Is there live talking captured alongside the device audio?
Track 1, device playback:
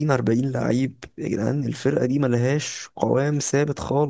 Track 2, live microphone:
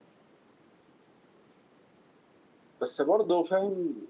Yes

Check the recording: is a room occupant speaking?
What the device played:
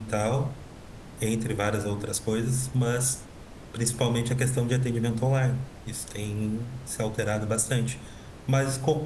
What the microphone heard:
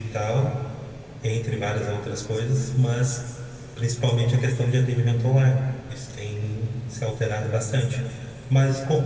No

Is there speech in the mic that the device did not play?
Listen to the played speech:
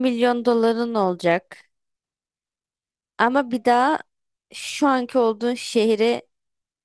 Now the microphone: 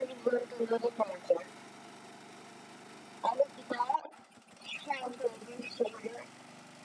No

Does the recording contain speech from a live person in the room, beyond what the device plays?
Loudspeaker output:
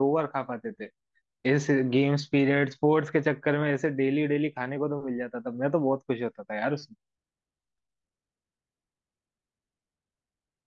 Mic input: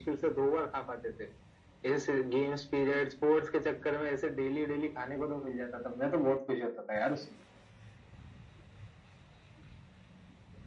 No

